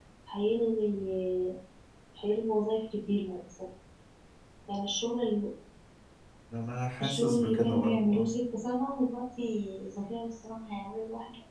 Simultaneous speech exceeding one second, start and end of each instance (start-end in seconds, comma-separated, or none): 7.0-8.3